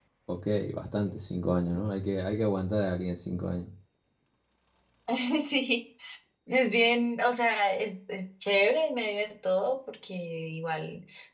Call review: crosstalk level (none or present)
none